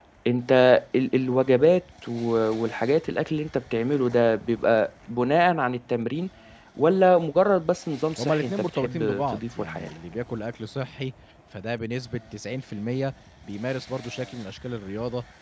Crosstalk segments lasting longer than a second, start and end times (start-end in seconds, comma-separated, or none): 8.2-9.9